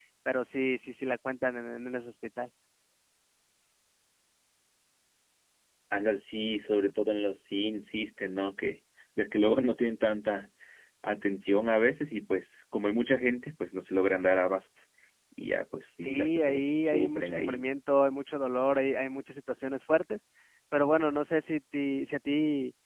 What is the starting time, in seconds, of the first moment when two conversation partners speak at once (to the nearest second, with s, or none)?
16 s